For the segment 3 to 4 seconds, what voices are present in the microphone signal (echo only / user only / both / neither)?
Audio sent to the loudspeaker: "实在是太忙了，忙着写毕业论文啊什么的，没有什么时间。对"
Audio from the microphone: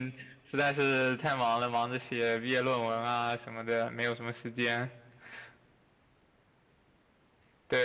echo only